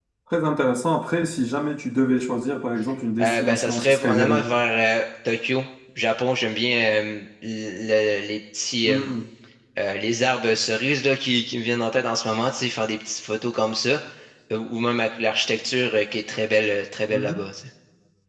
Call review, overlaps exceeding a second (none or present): present